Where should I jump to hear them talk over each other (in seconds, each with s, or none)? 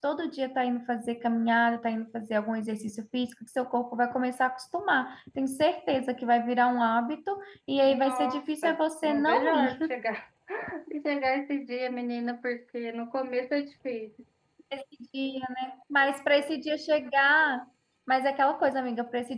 7.8 s